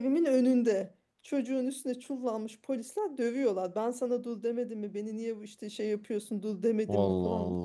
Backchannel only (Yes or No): Yes